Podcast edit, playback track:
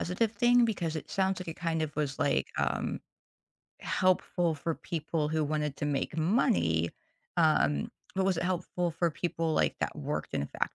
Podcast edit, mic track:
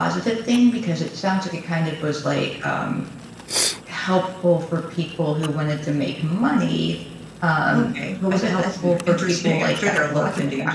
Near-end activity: present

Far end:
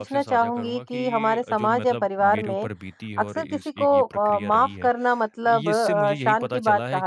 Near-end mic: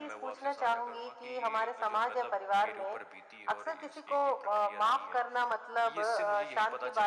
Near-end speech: none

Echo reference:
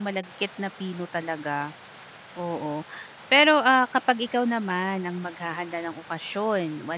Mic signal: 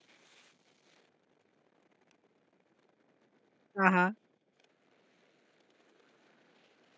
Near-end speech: present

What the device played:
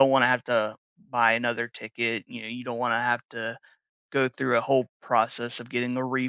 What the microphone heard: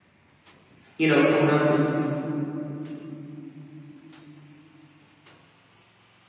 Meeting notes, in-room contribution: present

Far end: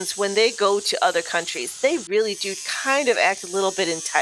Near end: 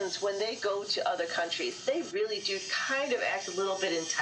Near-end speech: none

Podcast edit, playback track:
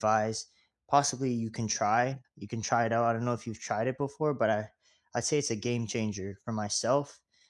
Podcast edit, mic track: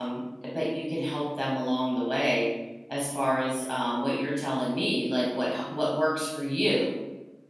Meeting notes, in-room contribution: present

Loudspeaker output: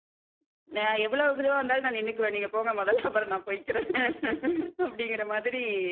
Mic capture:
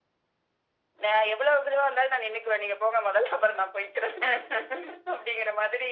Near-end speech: none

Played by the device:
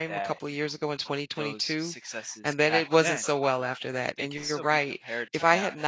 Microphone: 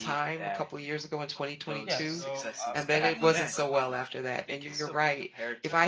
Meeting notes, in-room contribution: present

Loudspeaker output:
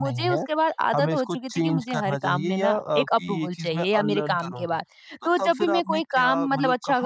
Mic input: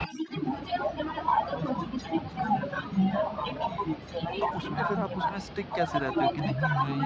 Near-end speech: present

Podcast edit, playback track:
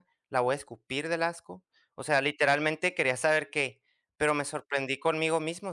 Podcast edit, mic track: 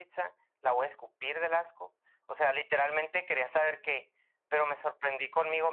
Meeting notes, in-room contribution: none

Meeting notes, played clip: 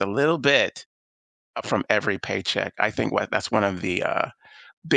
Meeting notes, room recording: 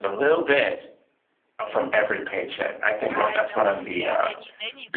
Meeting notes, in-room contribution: present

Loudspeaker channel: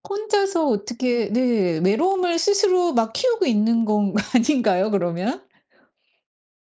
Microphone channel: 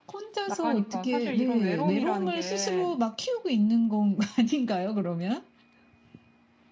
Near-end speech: present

